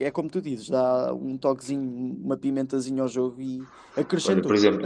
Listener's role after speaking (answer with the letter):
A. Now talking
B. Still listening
A